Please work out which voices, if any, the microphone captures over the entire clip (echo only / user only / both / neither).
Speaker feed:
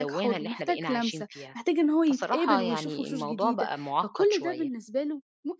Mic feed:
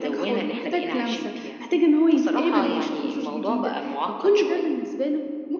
echo only